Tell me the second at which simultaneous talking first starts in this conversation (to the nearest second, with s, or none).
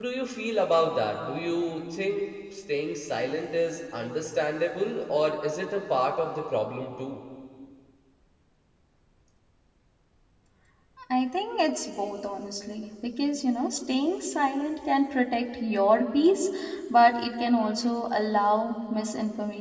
none